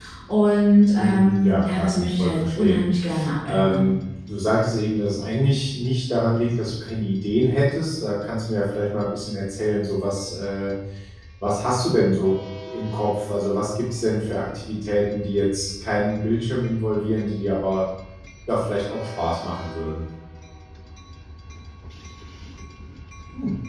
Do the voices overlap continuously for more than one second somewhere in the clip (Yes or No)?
Yes